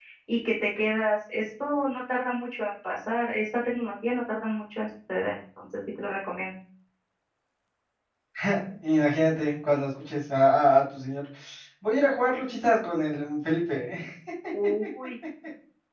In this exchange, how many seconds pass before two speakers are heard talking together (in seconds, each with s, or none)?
none